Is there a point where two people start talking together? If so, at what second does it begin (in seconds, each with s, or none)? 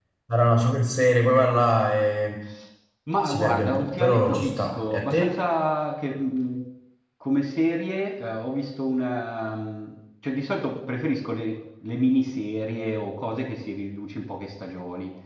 3.2 s